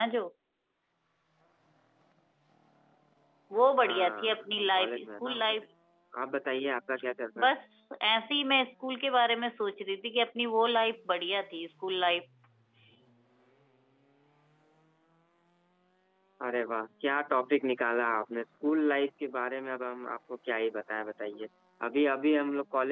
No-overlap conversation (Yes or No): No